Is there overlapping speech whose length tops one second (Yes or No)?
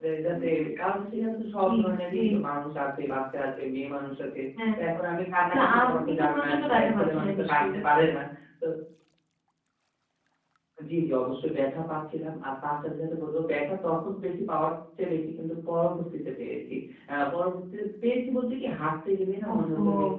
Yes